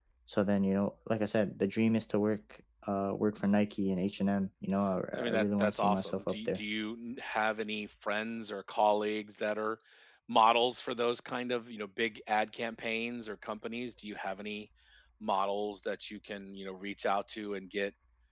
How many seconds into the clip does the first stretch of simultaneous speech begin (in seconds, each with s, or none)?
5.1 s